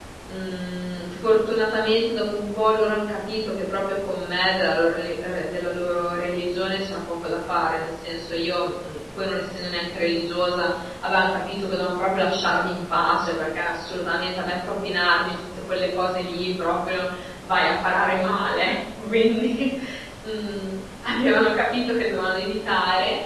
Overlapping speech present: No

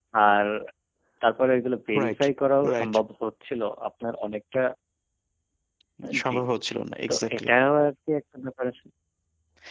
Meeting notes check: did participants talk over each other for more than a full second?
No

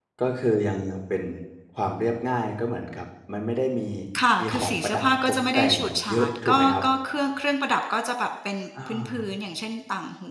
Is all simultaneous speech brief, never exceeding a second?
No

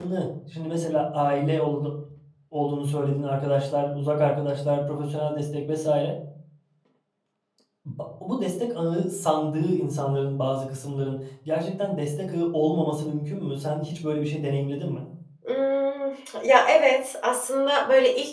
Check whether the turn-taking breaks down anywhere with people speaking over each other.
No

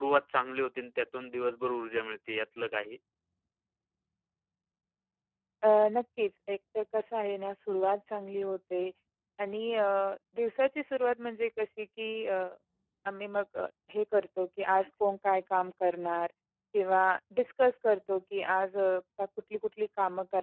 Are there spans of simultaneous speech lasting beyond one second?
No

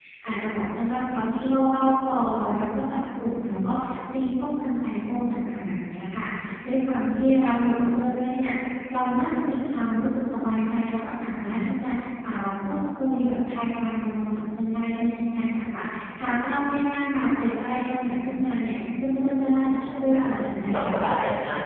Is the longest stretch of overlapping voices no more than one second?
No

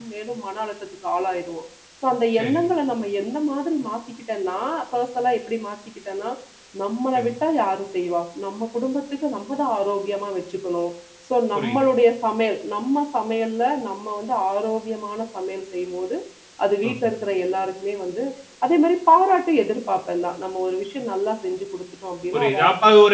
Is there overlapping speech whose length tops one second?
No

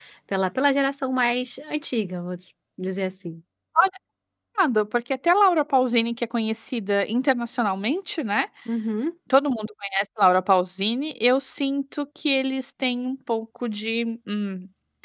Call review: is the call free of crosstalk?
Yes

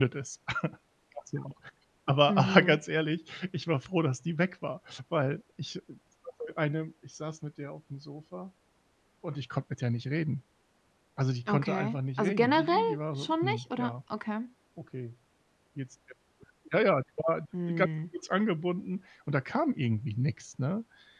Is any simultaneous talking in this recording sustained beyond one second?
Yes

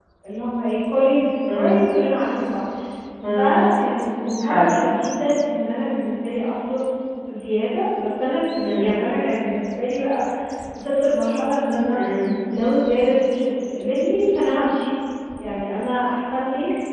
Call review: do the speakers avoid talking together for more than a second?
Yes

